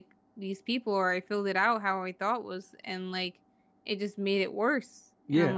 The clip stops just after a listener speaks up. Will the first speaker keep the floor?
No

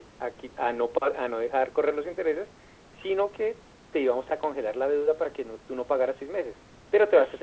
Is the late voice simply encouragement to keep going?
Yes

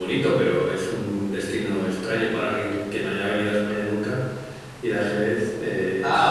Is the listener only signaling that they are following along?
No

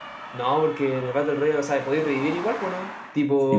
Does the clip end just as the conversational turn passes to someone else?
Yes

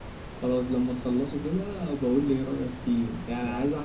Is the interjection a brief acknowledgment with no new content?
Yes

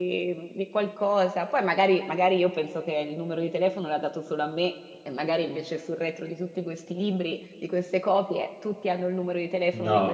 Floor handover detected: Yes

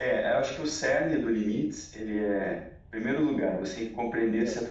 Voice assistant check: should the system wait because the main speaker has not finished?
Yes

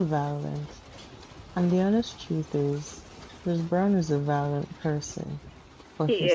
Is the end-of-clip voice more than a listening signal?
No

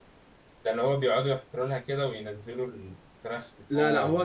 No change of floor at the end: No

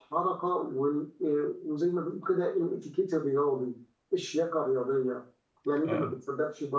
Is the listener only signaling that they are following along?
Yes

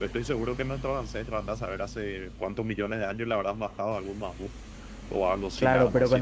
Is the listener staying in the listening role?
No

